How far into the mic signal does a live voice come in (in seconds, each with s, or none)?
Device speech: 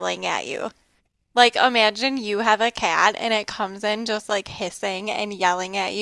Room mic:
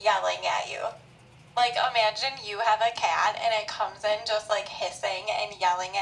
none